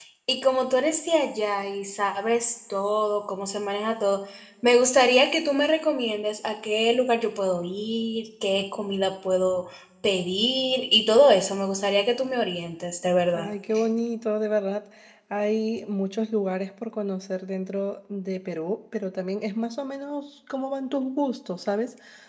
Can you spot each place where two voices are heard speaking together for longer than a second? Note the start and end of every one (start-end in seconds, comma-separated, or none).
none